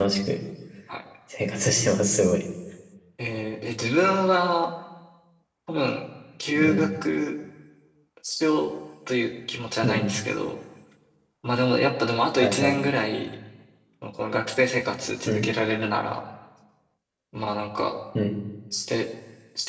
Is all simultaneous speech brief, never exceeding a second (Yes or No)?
Yes